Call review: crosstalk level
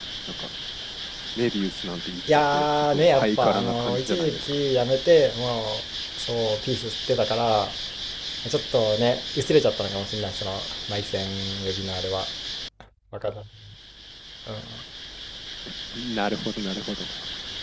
present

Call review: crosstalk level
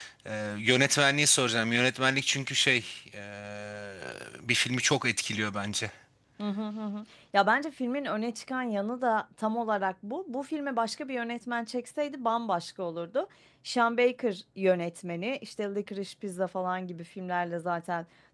none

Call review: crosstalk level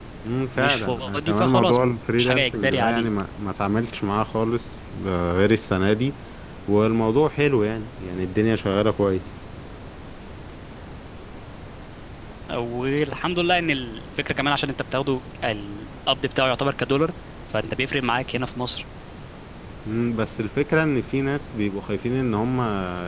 present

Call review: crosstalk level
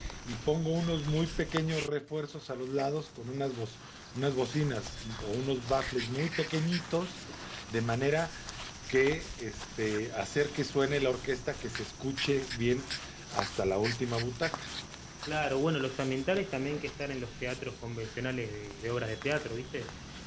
none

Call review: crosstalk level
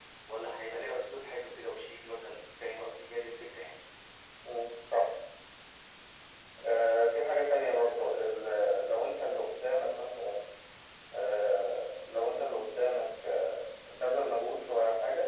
none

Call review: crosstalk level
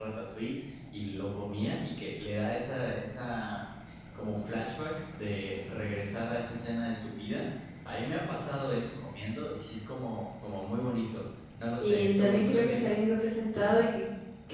present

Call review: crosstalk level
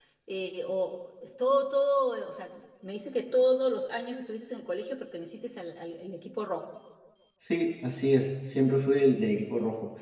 none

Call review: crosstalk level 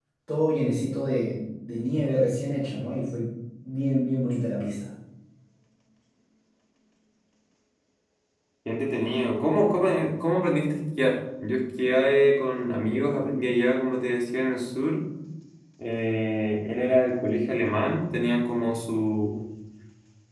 none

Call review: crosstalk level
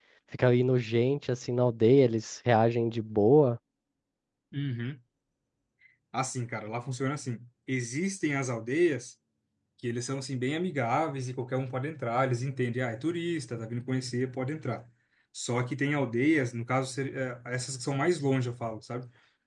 none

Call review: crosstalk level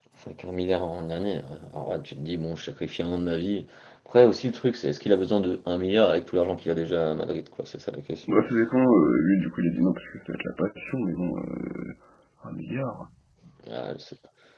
none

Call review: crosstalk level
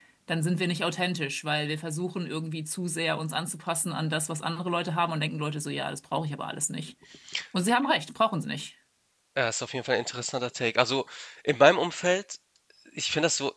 none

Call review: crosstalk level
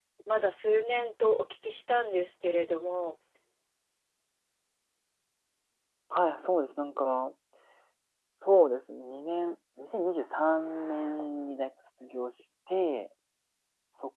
none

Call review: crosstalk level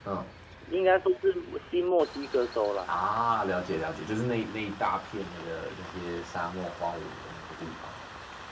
none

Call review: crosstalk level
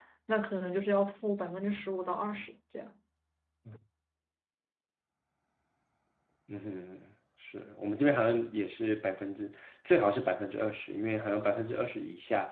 none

